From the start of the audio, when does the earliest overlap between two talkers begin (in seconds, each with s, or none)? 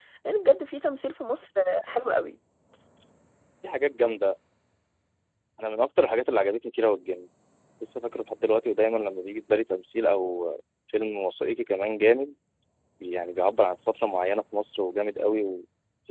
none